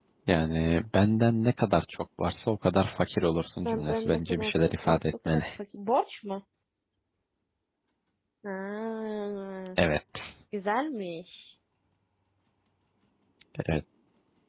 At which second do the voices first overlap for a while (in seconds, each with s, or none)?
3.6 s